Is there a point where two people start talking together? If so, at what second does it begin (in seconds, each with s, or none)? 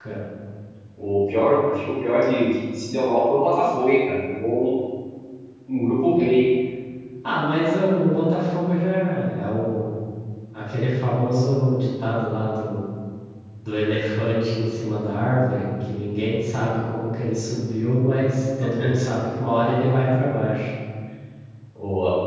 none